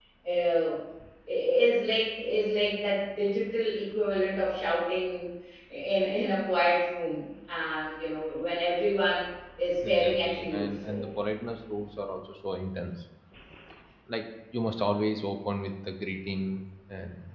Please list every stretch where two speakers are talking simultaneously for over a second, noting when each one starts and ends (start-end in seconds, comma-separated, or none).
9.8-11.1